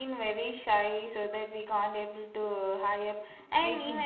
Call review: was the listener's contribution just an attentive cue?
Yes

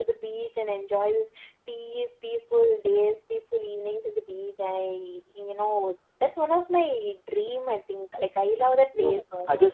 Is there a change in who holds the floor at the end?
Yes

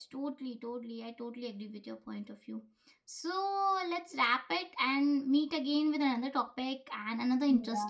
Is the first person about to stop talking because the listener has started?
Yes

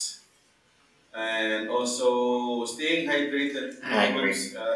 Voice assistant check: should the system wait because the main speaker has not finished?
Yes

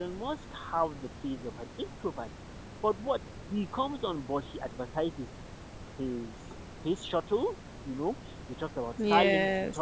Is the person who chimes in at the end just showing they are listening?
Yes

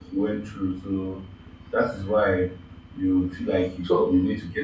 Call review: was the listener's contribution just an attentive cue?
Yes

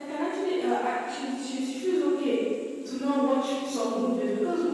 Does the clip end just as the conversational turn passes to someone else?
No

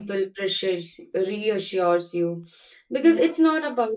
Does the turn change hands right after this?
No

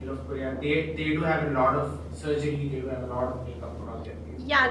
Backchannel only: No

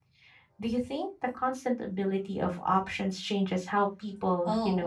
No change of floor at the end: No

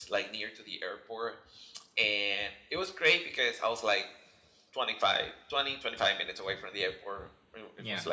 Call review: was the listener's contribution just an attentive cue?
Yes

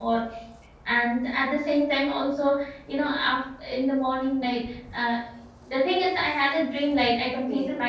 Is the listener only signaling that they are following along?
Yes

